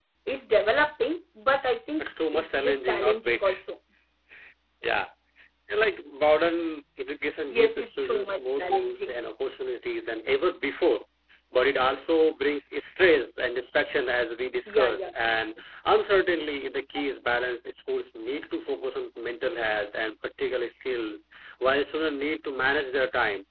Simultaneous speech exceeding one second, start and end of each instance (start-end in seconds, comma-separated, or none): 2.0-3.5, 7.5-9.2